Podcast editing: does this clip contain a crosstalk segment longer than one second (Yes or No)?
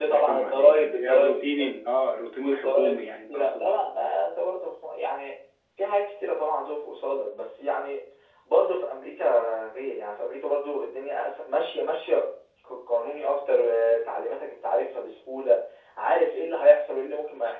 Yes